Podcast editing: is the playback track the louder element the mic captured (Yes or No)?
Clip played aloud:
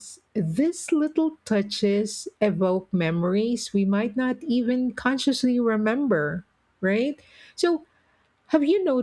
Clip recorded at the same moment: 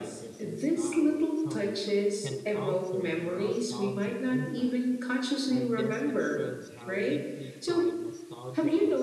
Yes